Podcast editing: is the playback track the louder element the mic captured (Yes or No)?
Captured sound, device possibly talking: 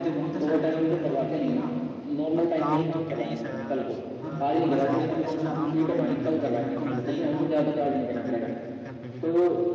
Yes